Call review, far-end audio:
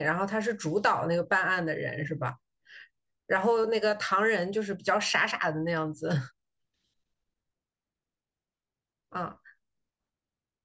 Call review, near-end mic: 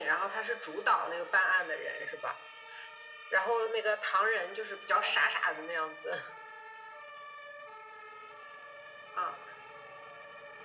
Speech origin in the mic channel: echo only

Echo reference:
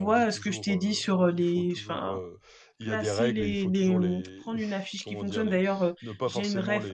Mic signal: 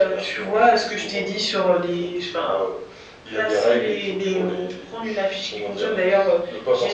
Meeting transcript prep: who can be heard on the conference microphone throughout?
echo only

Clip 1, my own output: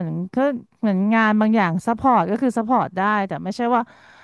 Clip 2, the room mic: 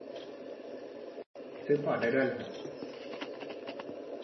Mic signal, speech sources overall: user only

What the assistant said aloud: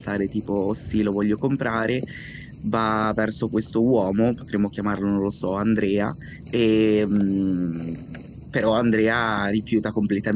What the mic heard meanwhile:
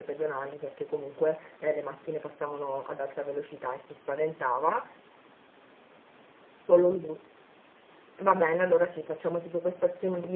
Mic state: user only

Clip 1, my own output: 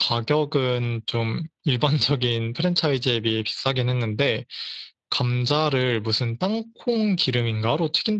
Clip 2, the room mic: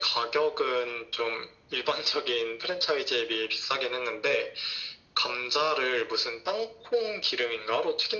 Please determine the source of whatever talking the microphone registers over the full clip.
echo only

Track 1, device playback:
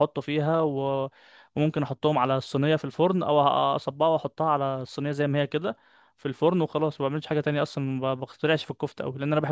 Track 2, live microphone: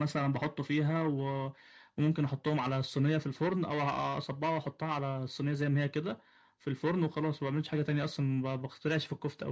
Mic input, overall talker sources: echo only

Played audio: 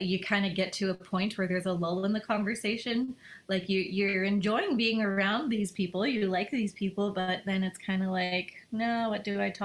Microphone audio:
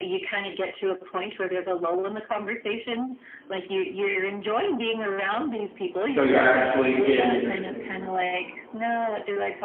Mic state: both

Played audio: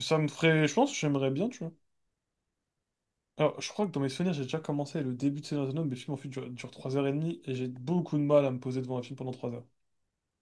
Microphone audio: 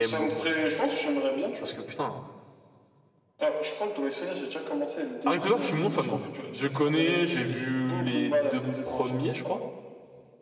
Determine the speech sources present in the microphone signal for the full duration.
both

